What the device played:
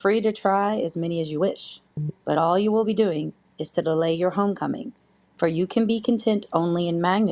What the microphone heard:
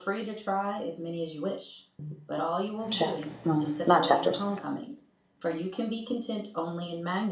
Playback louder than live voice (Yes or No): No